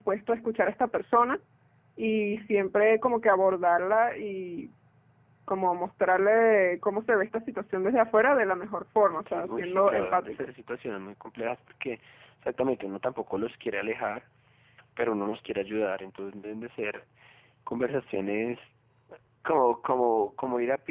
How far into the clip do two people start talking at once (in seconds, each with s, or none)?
9.1 s